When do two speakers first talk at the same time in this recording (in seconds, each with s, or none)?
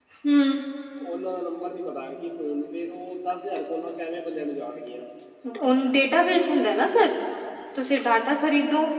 none